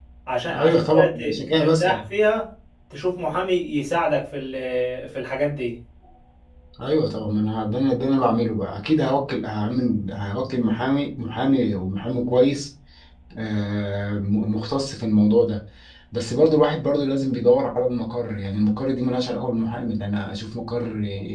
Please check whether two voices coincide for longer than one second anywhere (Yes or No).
Yes